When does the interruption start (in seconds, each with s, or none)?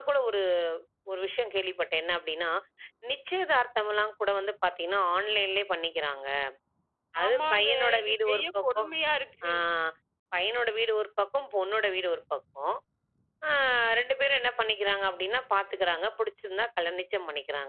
7.2 s